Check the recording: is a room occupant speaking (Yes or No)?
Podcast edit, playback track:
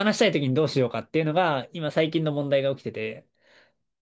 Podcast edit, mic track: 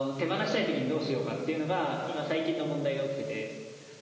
No